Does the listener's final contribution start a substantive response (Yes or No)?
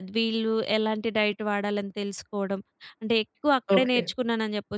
No